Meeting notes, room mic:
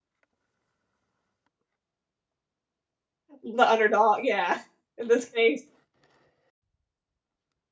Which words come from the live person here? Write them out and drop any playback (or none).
The underdog, yeah. In this case